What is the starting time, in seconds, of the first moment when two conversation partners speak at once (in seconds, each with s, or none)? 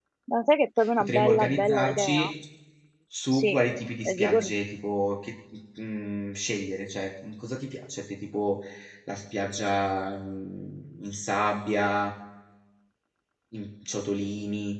1.0 s